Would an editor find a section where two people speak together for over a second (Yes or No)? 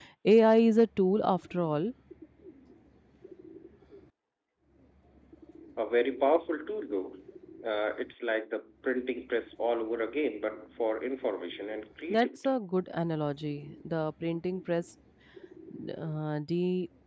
No